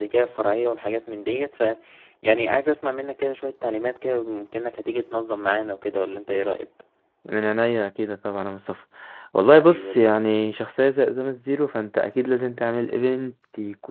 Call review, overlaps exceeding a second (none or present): none